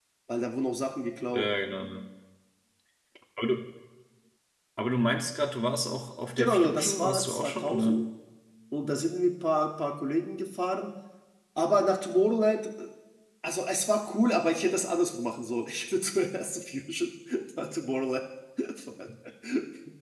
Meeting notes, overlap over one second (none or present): present